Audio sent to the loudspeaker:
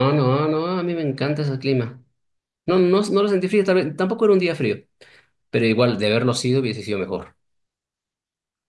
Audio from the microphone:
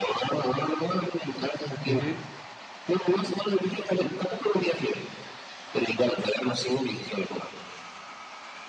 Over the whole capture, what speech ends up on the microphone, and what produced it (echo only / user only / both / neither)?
both